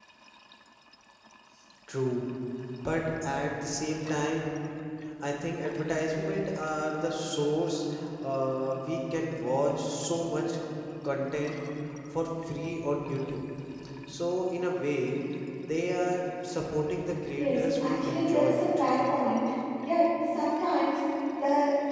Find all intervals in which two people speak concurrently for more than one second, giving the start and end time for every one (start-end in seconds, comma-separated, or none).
17.3-18.6